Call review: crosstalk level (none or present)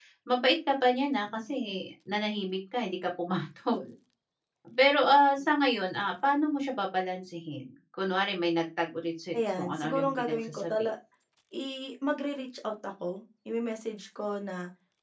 present